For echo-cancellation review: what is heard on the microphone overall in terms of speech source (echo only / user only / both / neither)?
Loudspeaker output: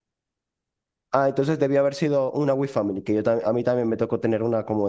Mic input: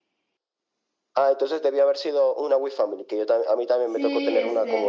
both